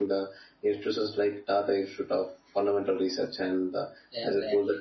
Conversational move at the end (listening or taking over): listening